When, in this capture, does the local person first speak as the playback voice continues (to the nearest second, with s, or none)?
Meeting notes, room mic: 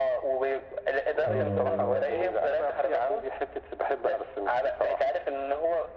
1 s